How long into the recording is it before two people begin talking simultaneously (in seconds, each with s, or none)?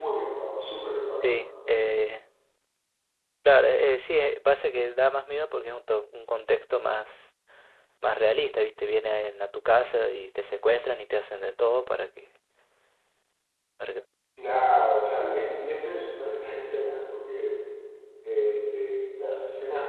none